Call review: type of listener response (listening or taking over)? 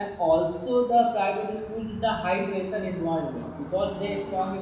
listening